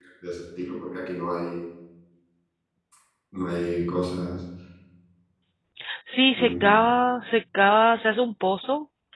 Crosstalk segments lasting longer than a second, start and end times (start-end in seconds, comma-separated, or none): none